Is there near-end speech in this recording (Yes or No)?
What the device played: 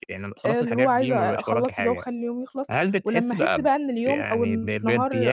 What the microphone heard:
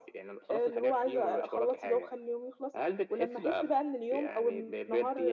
No